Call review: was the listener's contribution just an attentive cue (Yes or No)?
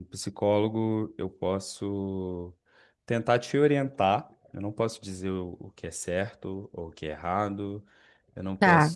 Yes